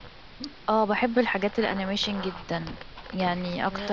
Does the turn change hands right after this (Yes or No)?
No